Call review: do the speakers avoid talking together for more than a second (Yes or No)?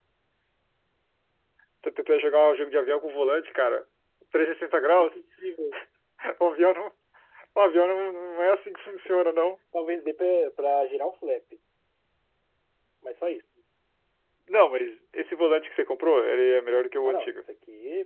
Yes